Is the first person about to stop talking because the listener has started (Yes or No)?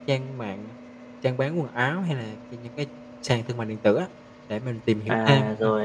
Yes